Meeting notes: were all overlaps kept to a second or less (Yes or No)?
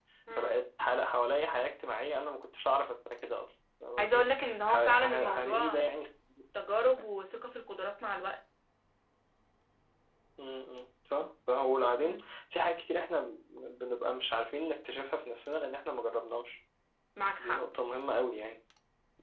No